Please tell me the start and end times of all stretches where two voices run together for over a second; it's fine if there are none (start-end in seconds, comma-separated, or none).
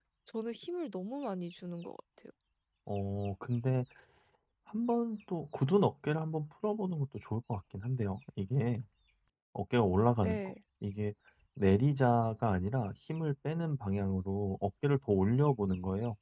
none